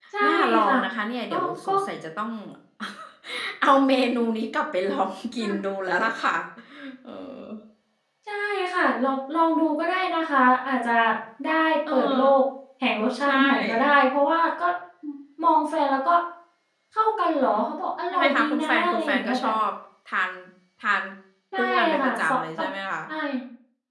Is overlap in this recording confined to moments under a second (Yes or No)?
No